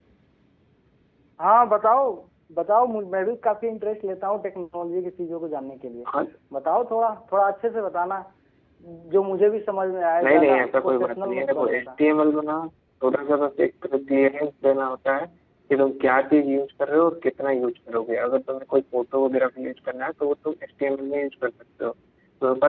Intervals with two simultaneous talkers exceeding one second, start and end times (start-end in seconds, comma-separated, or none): 10.2-11.8